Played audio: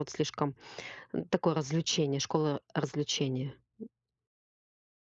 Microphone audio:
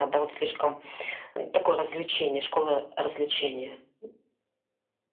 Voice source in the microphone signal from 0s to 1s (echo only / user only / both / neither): echo only